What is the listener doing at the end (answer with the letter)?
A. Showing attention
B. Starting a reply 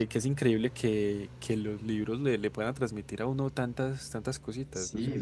B